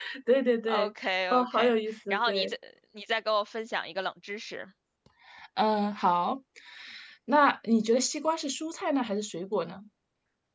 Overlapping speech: Yes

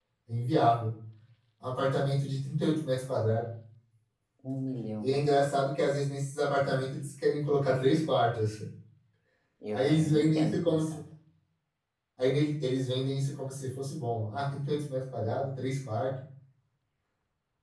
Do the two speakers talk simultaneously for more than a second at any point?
Yes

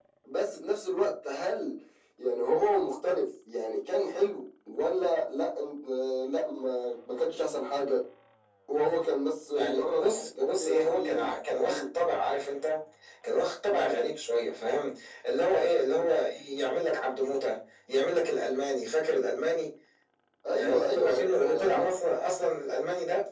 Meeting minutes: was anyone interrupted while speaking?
Yes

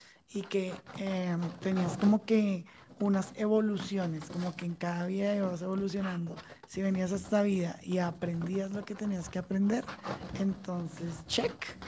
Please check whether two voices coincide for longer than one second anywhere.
No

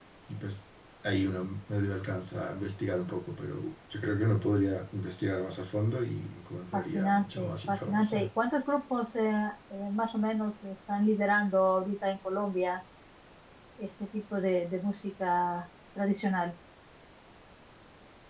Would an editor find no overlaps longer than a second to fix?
No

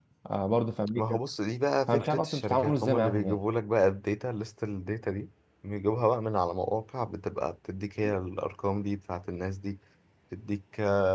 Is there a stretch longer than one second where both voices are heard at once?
Yes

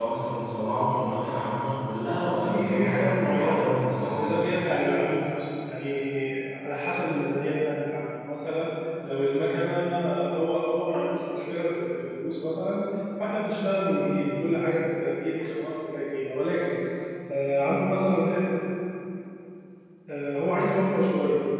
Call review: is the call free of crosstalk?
No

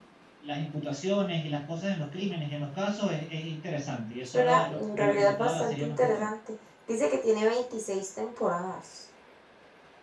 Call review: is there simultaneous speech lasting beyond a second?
Yes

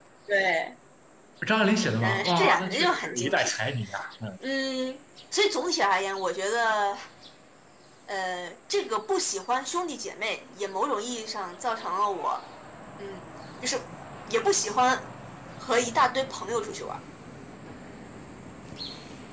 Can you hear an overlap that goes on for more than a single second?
Yes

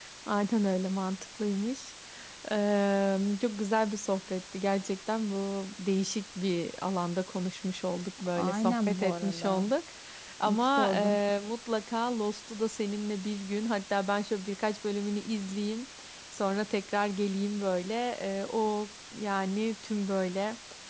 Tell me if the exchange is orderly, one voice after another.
No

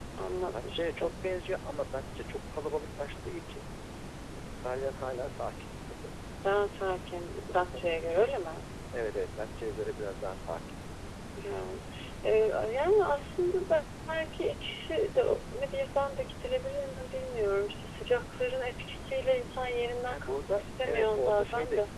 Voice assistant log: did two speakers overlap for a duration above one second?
Yes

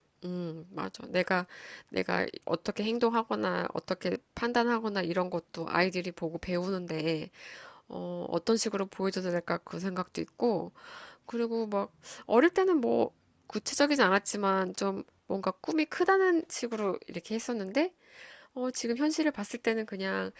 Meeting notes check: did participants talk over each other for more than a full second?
No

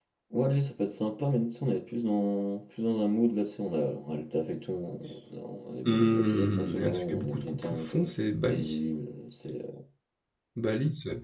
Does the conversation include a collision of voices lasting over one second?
Yes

